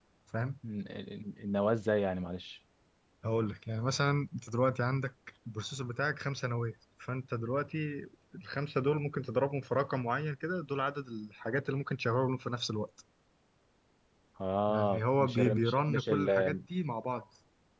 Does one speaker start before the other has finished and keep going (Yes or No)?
Yes